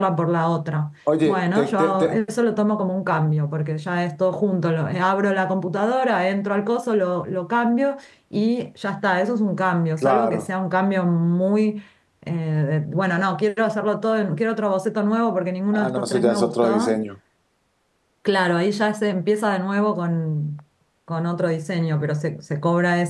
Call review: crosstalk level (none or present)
present